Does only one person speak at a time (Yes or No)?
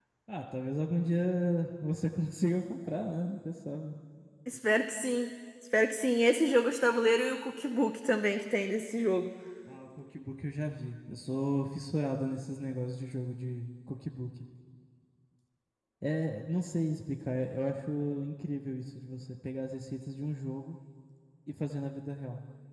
Yes